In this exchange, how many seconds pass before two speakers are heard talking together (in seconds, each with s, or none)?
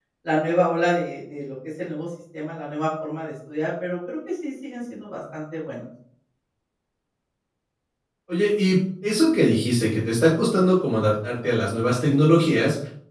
none